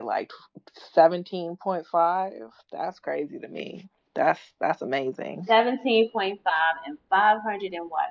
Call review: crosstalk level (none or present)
none